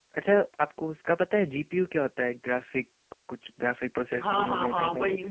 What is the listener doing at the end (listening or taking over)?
taking over